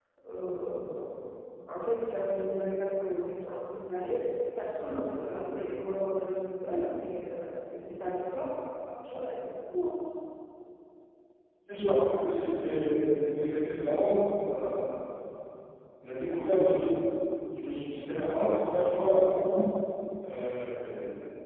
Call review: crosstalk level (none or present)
none